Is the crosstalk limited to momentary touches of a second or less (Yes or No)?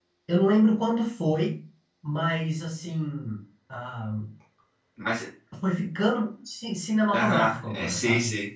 No